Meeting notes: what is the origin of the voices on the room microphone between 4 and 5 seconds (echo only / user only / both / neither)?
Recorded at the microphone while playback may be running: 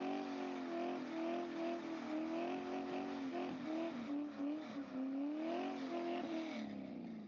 neither